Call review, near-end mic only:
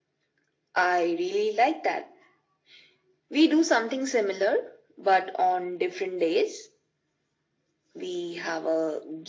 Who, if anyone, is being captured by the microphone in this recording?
echo only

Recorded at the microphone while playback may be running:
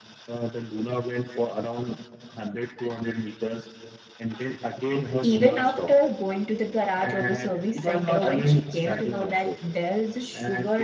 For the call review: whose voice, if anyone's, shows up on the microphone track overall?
both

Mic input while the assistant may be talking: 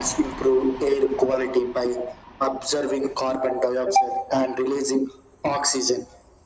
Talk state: echo only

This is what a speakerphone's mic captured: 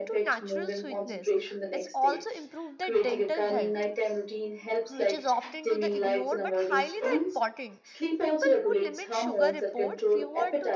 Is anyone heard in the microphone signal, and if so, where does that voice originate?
both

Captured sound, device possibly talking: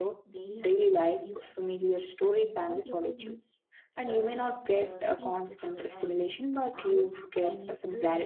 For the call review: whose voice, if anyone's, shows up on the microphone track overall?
both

